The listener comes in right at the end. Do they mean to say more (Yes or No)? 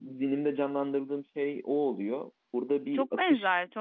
Yes